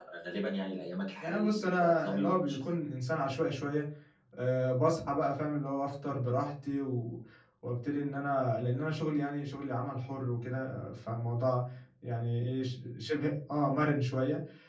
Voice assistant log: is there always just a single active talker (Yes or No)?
No